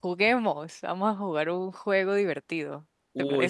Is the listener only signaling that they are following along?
No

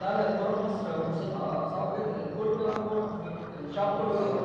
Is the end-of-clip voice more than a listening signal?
Yes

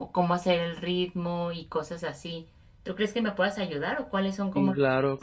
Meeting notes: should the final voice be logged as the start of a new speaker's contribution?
Yes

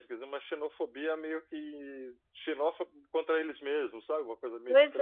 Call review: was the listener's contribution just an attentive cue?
No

